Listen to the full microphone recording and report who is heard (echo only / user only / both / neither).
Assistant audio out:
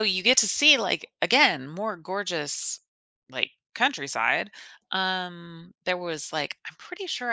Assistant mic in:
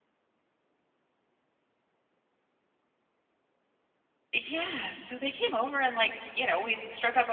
user only